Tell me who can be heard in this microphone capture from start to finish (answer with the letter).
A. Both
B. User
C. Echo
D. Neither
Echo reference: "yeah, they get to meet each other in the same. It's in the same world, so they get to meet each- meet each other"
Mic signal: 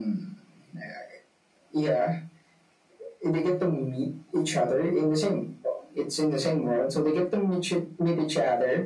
C